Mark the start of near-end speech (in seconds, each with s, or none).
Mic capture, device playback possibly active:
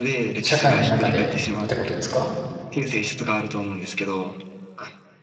0.4 s